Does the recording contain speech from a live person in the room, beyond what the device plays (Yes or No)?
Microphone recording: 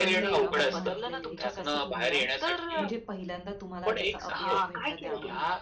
Yes